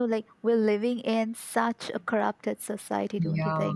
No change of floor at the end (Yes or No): No